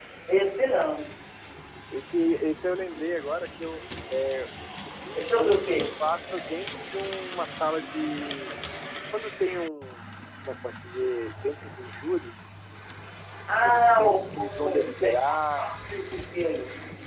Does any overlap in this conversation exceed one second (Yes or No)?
Yes